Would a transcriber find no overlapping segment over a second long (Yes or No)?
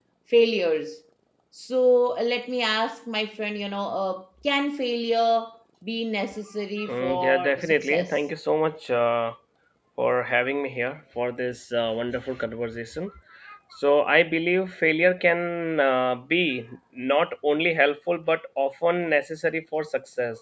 No